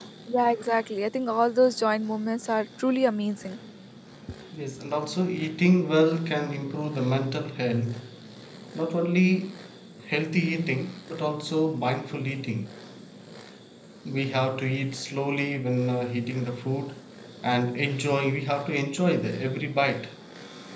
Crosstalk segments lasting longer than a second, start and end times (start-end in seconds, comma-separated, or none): none